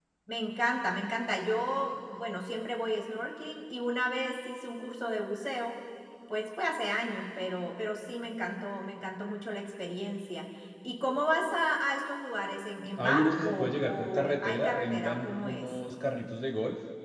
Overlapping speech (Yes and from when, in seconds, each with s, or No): Yes, from 13.0 s